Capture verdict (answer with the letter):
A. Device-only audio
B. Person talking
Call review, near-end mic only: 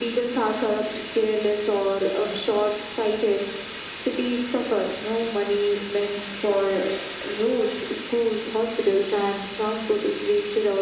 A